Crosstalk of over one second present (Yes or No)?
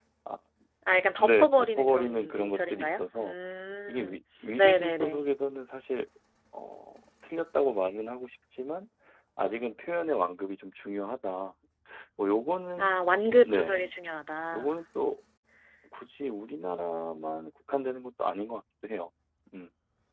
Yes